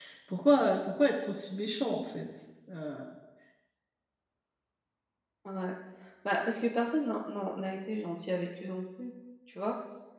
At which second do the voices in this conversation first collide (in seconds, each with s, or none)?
none